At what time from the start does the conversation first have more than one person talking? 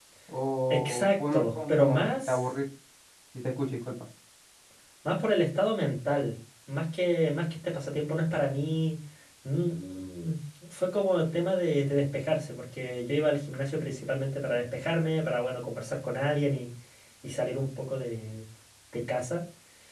0.7 s

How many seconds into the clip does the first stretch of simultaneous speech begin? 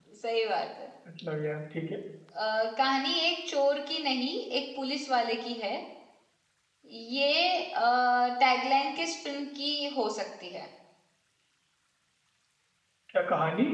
none

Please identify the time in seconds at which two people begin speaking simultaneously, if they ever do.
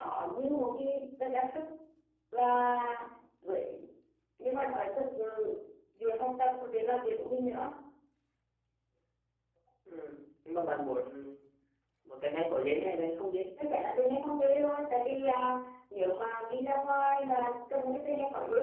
none

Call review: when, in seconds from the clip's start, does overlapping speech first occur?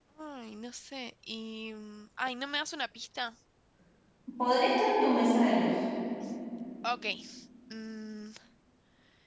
none

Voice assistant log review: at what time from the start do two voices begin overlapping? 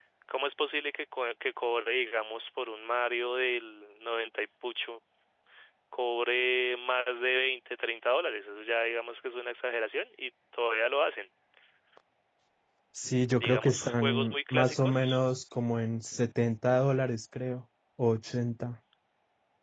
13.4 s

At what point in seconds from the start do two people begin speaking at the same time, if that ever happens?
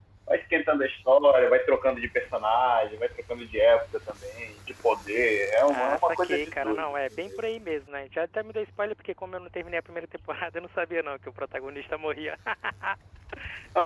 5.7 s

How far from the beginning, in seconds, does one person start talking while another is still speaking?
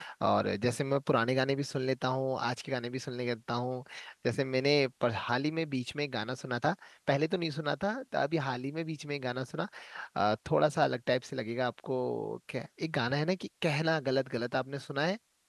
none

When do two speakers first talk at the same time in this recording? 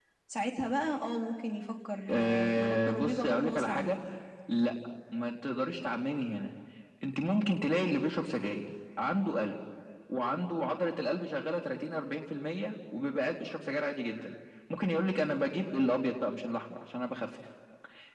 2.1 s

